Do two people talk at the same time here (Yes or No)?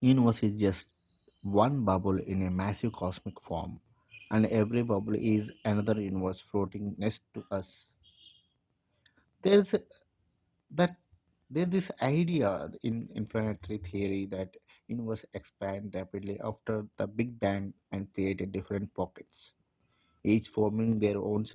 No